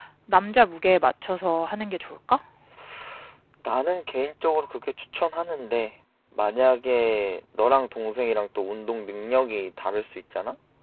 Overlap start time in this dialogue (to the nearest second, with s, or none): none